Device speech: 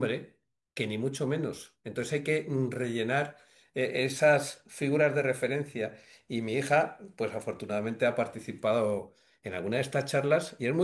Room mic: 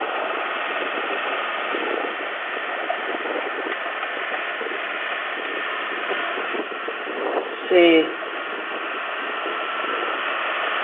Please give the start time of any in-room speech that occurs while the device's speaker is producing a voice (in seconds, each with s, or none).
7.4 s